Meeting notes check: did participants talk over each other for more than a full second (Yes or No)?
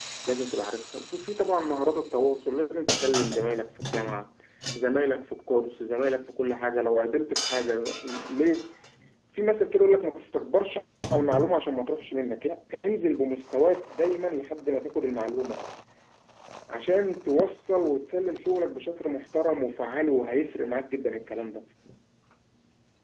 No